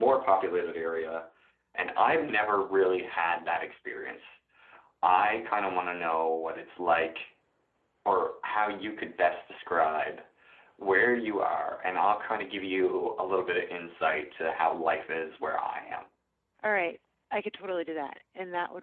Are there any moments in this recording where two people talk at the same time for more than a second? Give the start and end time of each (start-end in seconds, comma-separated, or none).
none